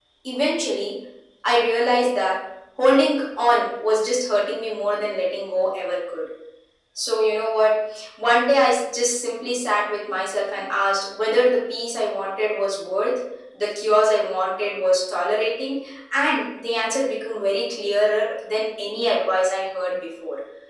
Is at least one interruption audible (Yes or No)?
No